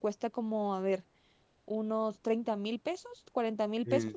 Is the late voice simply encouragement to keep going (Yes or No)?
No